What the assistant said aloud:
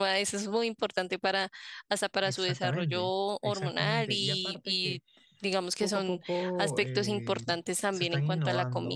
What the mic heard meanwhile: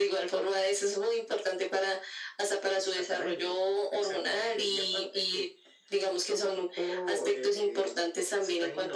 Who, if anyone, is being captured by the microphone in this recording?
echo only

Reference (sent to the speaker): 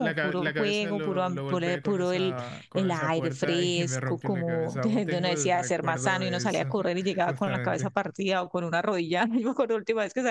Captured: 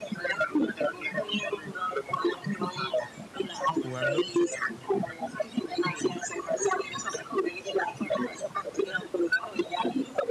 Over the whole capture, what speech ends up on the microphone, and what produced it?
both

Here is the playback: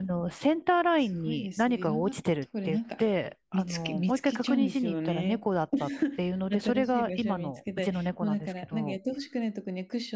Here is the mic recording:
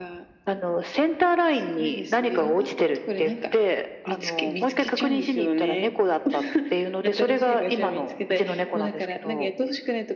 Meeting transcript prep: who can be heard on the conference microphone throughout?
echo only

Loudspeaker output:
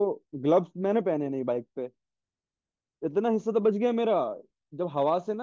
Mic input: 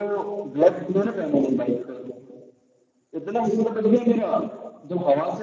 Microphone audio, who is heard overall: echo only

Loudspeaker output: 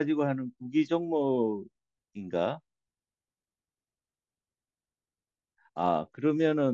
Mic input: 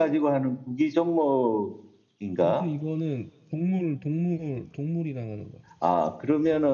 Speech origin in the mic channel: both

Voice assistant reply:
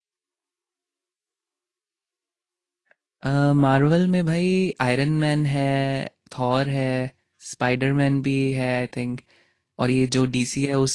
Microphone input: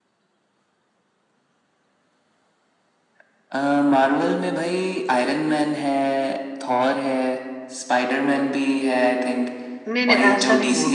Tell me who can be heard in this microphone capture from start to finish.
both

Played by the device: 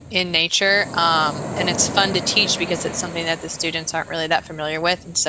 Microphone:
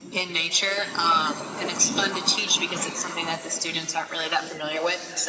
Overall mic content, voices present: echo only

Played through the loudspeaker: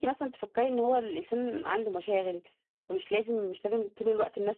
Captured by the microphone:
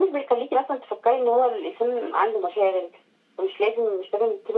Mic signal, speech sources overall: echo only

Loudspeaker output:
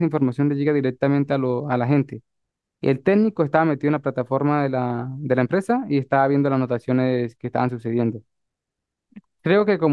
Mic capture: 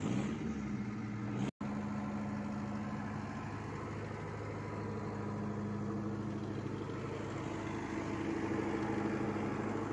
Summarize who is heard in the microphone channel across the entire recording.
neither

